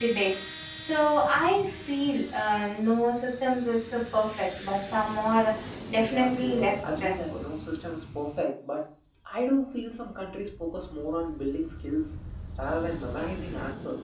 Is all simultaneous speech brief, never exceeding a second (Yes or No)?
No